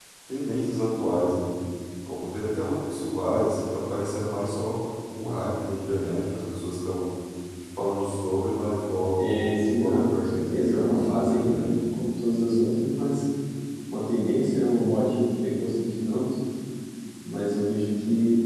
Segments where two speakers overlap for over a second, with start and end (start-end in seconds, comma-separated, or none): 9.2-11.7